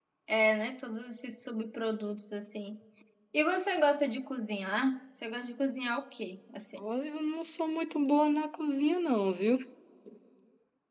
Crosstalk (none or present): none